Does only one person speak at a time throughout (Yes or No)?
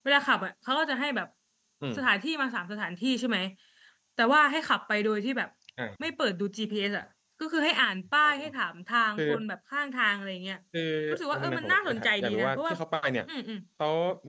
No